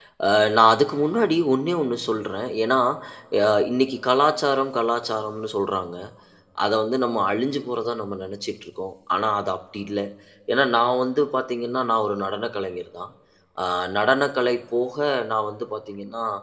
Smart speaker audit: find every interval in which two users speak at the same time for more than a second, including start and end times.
none

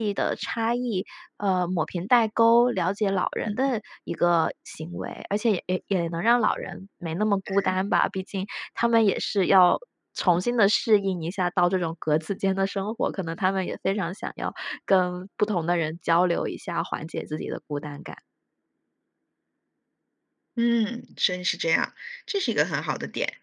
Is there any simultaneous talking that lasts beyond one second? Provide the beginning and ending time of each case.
none

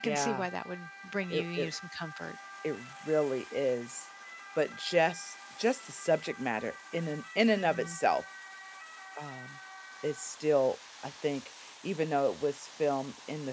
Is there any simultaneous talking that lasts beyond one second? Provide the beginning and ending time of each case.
none

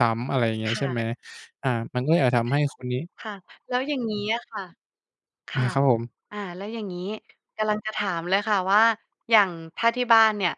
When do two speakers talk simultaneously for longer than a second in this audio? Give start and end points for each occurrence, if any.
none

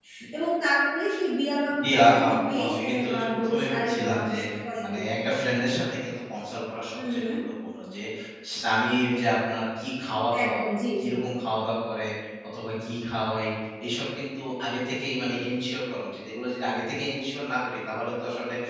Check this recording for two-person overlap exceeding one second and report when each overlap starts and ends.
1.8-4.3

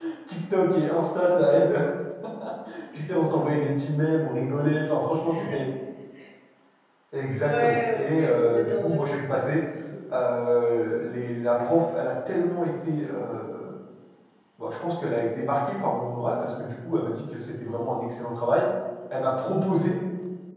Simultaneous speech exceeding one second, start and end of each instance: 7.4-9.4

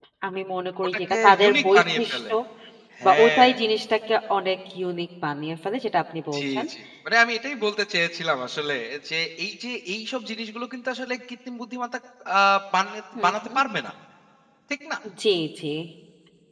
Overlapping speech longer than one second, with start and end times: 0.8-2.3

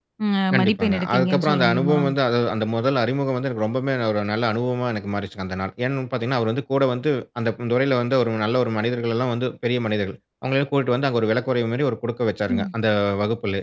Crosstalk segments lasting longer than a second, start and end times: 0.5-2.0

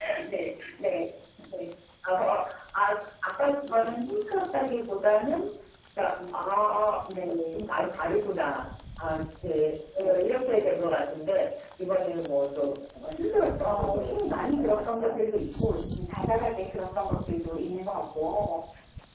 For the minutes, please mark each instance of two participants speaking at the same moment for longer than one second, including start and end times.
13.6-15.1

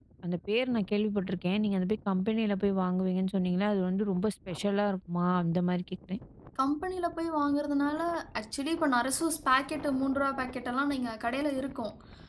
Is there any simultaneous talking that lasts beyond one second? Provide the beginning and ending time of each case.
none

